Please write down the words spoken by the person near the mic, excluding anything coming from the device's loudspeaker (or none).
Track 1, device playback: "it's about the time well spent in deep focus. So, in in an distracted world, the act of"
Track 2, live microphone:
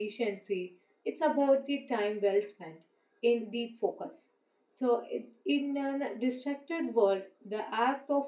none